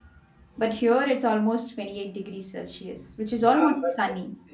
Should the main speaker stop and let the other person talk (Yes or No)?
Yes